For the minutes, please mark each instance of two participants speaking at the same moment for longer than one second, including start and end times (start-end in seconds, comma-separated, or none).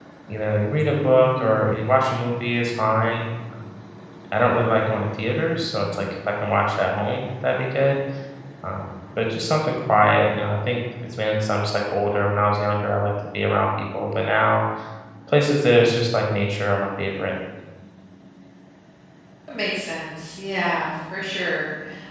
none